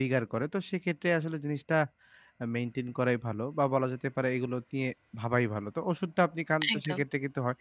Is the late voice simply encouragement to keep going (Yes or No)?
Yes